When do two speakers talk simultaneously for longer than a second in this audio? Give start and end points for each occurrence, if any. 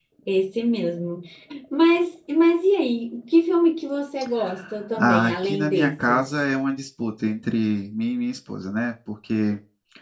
5.0-6.3

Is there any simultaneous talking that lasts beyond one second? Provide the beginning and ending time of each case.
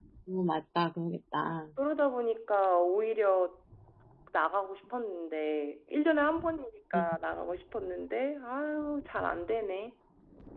none

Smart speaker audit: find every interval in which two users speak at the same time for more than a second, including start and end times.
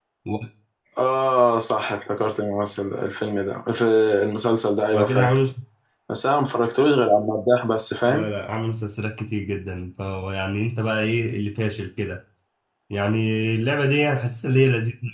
none

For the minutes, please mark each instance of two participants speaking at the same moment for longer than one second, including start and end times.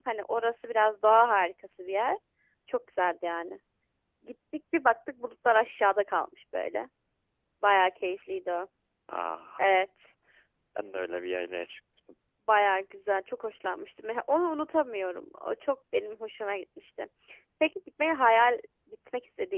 none

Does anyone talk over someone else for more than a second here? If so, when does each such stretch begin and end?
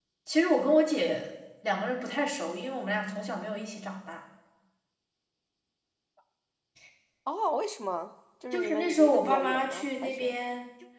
8.5-10.3

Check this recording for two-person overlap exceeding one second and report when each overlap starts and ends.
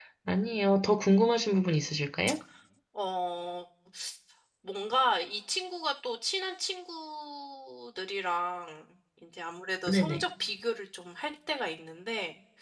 none

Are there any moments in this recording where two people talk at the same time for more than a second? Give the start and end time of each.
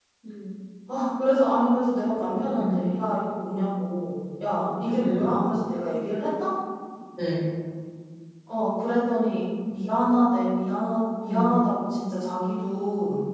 none

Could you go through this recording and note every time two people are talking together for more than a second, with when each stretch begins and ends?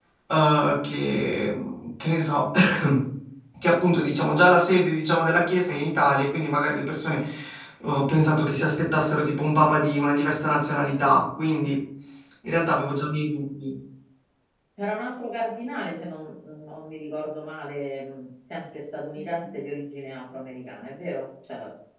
none

